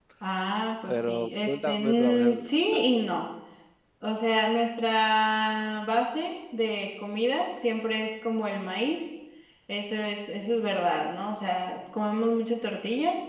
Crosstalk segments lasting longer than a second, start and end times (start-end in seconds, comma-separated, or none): 0.9-2.3